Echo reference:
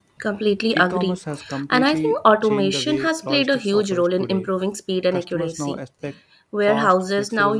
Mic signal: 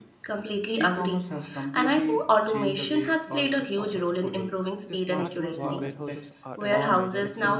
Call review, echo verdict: present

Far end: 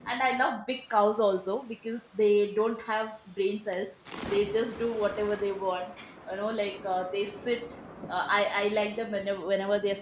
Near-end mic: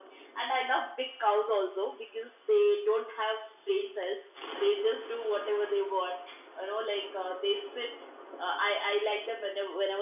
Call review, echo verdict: present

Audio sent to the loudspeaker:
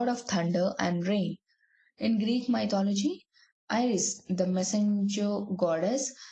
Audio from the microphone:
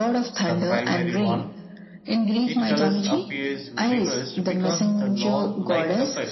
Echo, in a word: present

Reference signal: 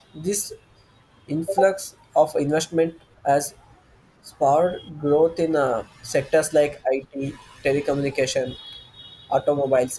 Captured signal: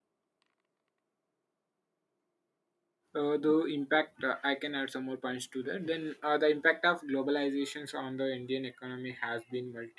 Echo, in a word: none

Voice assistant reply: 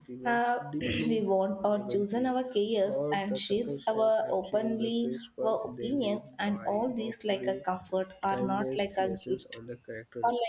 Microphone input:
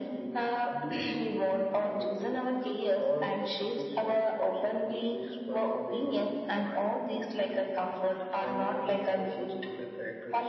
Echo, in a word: present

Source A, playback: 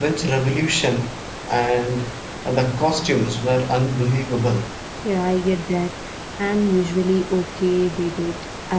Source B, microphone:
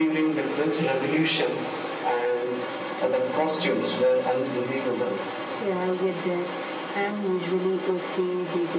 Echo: present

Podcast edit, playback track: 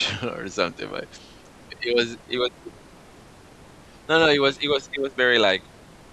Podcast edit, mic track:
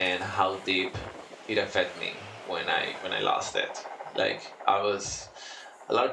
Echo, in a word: none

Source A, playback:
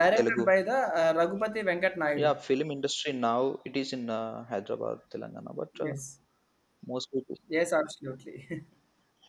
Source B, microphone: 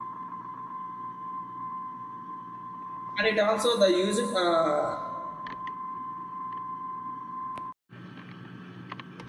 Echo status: none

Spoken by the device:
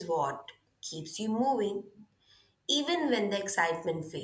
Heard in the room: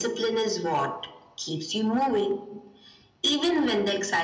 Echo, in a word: present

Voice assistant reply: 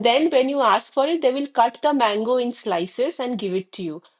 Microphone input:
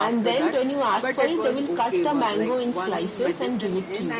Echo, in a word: present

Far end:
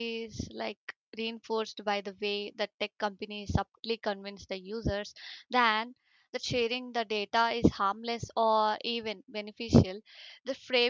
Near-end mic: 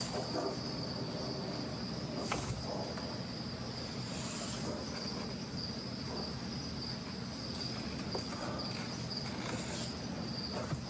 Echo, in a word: none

